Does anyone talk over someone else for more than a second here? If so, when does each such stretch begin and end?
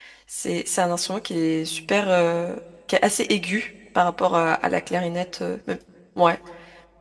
none

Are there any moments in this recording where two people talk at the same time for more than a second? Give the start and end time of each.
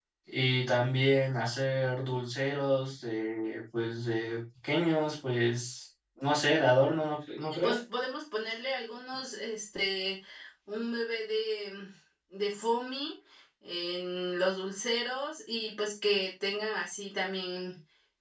none

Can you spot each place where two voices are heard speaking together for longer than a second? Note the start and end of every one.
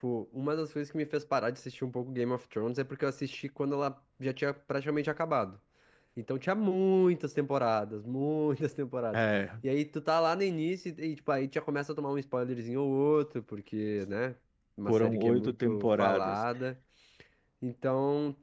14.9-16.4

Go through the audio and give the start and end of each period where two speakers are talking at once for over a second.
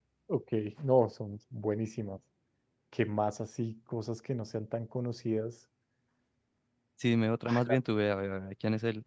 none

